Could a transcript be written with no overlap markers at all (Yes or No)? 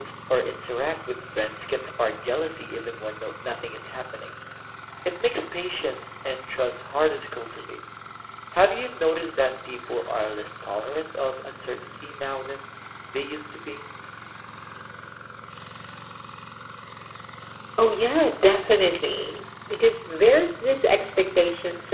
Yes